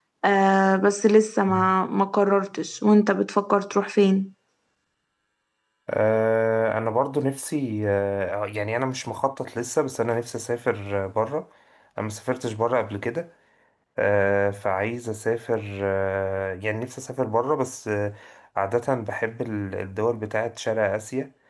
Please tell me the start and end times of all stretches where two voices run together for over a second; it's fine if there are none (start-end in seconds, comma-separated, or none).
none